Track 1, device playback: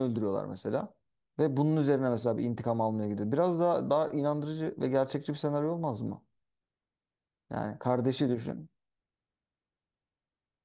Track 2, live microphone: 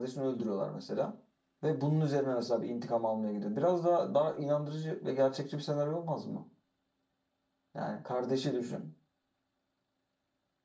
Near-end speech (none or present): none